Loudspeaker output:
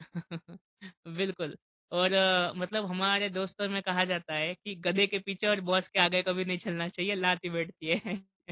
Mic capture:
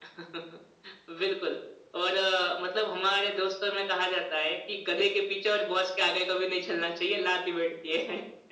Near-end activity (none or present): none